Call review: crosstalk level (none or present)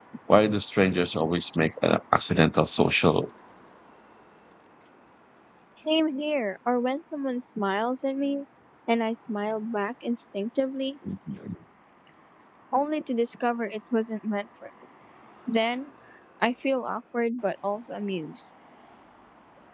none